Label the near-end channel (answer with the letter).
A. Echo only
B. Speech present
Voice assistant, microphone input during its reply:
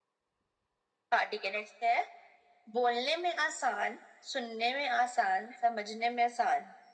A